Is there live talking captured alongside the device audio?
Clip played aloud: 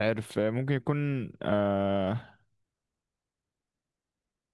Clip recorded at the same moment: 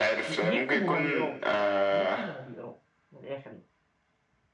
Yes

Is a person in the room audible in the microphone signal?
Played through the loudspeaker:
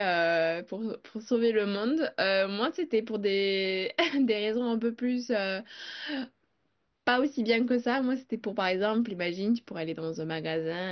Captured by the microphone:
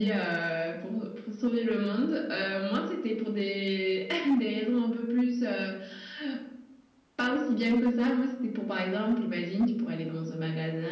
No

